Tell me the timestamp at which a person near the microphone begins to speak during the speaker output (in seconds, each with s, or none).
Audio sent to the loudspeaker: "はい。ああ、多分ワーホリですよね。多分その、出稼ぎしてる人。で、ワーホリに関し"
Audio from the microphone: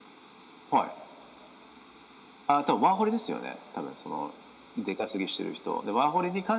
none